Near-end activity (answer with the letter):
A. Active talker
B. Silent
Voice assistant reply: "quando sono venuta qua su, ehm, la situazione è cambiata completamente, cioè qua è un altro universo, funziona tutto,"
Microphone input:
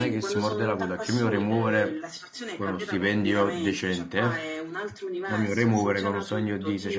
A